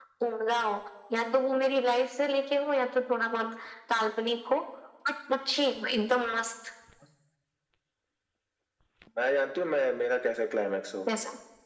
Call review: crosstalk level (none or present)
none